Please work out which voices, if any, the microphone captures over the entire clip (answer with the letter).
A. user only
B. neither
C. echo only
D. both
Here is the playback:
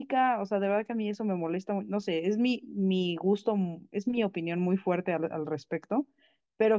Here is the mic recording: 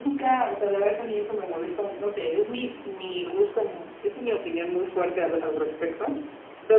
C